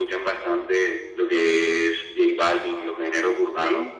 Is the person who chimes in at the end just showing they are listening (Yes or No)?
Yes